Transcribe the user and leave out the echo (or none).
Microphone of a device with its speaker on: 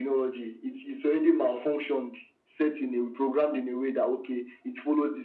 none